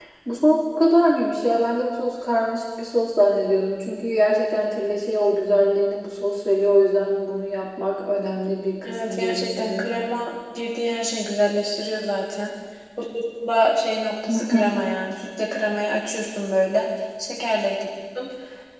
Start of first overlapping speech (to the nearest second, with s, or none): 9 s